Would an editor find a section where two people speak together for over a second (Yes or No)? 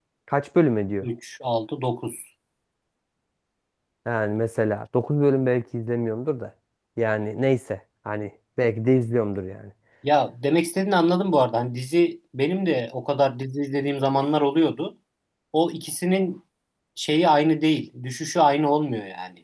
No